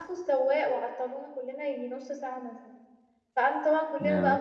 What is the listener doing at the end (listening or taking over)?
listening